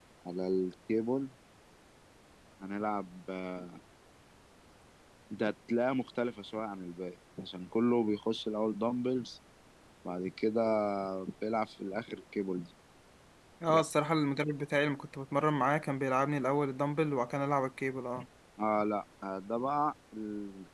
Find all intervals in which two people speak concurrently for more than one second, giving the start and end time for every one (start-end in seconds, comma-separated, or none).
none